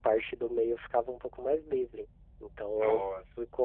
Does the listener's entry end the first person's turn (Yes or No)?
No